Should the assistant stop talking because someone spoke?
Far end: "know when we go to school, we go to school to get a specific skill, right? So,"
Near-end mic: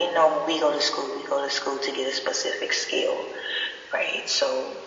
No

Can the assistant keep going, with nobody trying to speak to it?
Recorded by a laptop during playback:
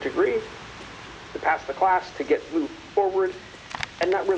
Yes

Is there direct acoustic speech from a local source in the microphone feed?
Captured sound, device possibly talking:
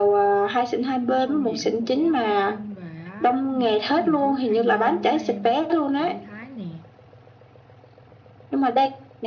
Yes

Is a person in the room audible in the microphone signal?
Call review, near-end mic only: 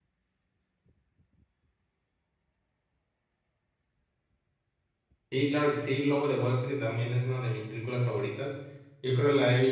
Yes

